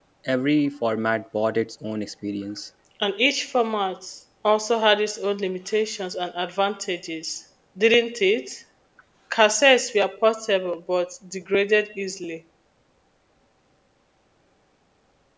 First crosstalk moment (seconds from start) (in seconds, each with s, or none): none